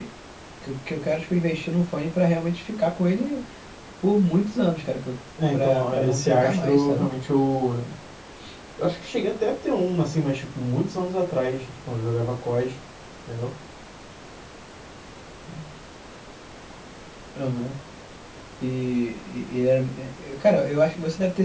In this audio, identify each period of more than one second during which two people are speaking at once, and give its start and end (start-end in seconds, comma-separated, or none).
5.5-7.1